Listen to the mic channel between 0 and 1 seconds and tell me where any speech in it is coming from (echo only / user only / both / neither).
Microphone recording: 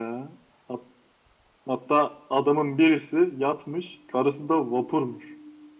echo only